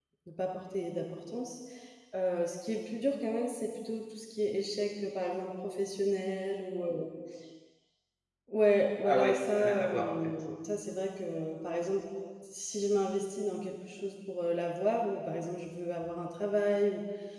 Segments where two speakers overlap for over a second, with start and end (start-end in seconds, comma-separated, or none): 9.0-10.3